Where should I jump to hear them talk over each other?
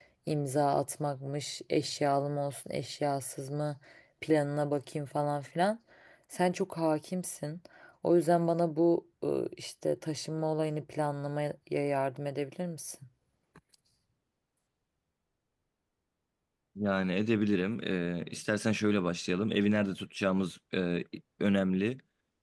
none

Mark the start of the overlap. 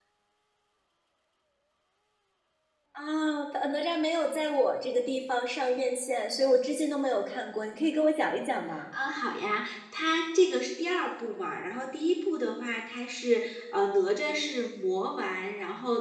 none

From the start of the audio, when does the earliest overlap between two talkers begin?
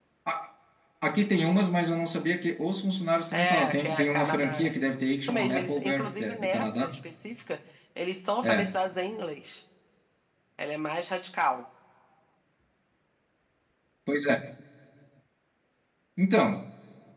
3.3 s

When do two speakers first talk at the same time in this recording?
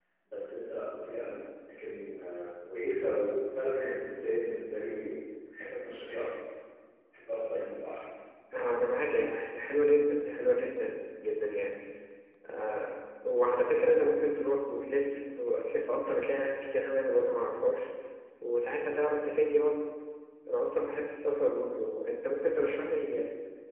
none

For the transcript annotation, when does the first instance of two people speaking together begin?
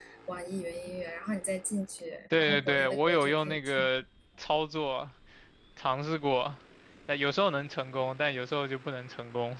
2.3 s

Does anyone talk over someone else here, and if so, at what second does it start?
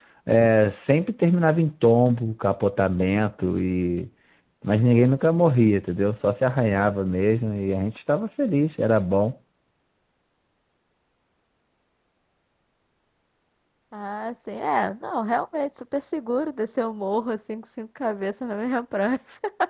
none

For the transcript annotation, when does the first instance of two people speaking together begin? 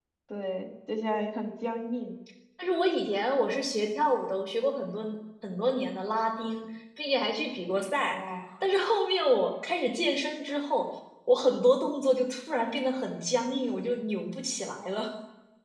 none

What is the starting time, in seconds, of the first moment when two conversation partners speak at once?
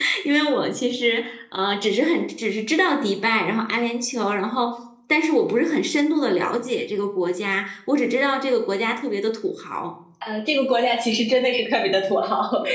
none

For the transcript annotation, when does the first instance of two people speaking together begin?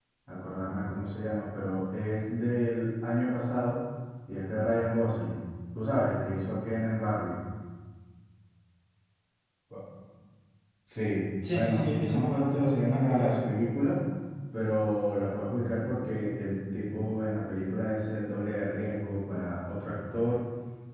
11.5 s

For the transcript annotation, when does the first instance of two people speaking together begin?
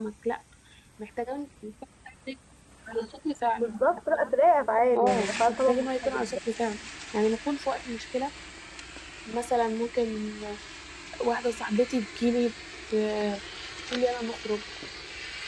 5.0 s

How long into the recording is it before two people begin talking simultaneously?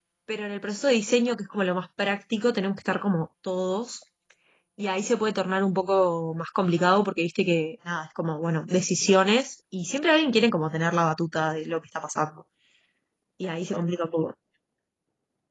none

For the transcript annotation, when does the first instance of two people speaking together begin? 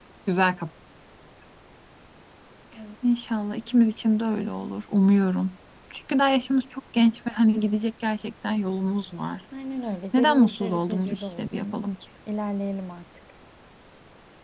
10.1 s

